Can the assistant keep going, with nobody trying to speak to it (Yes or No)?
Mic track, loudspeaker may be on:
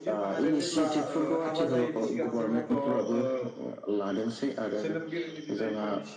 No